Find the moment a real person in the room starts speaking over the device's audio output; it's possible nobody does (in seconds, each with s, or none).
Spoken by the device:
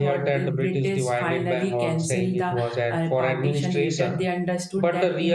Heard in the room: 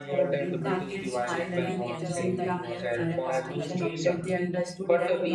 0.6 s